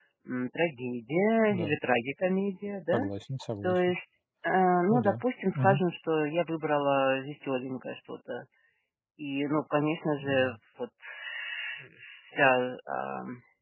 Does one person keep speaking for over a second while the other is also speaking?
No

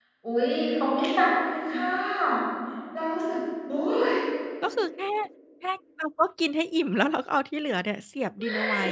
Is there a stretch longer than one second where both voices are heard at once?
No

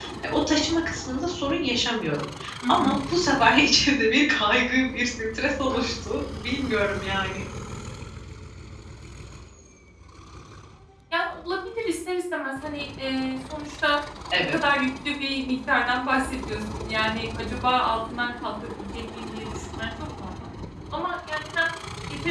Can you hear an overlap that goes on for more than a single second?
No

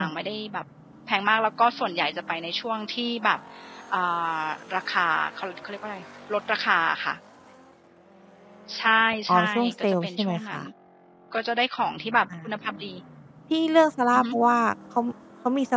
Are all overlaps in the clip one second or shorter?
No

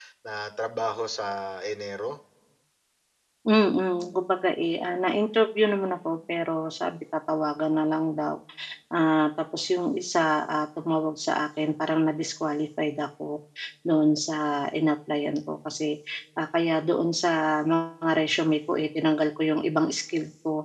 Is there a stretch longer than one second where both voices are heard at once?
No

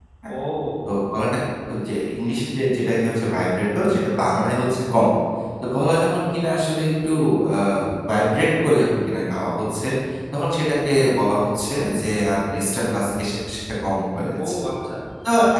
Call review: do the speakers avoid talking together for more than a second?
Yes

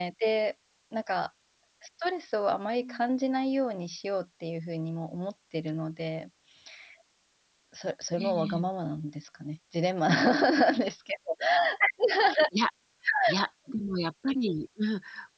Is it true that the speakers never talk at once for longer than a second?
Yes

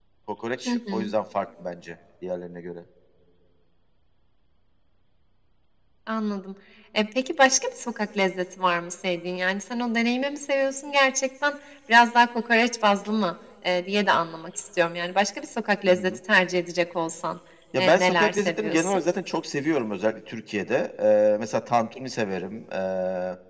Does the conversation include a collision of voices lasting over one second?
Yes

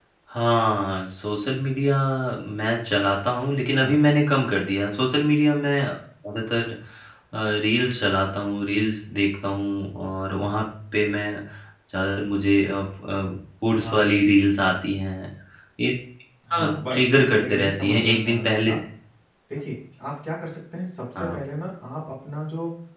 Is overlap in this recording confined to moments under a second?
No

